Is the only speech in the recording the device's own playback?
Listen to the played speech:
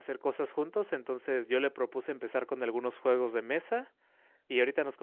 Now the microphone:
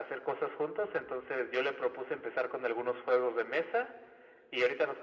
Yes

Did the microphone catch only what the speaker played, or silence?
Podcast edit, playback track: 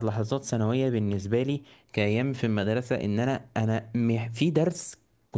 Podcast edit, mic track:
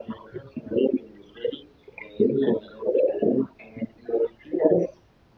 Yes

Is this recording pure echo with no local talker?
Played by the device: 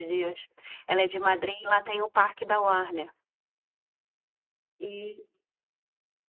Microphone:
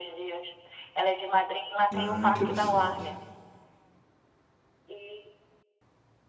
No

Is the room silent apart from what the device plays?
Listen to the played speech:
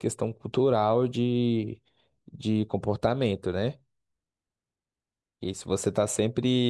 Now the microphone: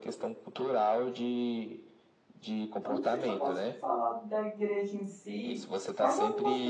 No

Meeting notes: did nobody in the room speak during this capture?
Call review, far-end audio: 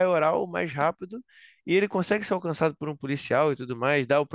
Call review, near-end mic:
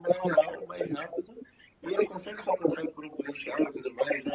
Yes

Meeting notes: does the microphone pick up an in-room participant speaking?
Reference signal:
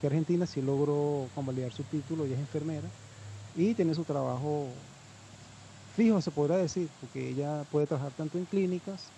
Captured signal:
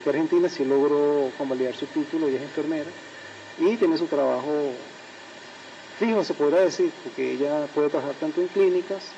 No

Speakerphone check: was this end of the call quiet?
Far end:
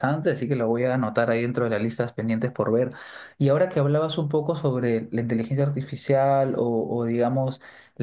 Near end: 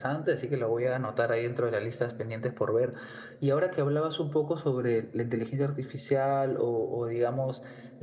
Yes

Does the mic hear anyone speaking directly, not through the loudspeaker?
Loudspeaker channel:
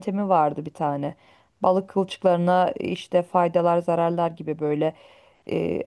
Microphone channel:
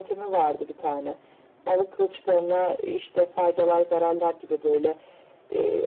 No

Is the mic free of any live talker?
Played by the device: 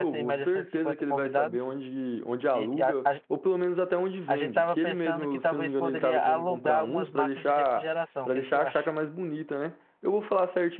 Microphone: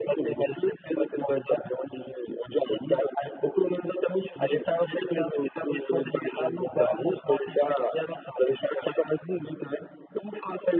Yes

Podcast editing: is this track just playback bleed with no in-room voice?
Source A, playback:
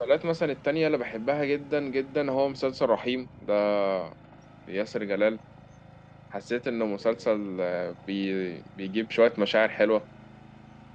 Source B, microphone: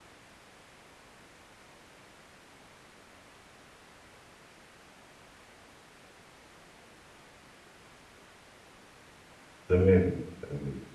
No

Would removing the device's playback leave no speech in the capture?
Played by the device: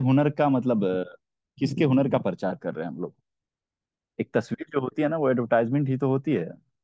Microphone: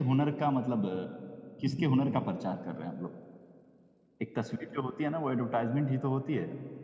Yes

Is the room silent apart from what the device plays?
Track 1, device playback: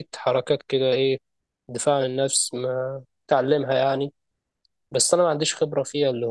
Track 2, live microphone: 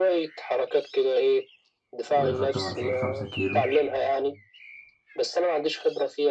No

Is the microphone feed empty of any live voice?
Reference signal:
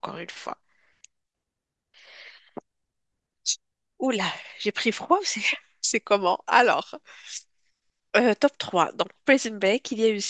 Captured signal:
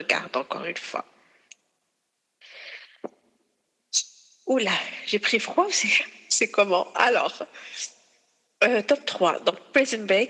Yes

